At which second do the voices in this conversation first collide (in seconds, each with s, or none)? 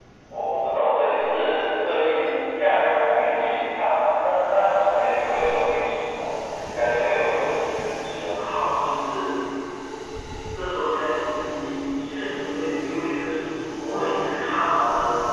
none